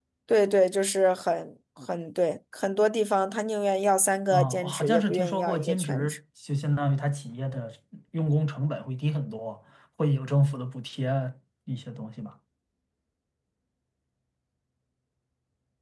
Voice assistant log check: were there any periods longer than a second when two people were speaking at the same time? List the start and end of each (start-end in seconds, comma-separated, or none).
4.3-6.1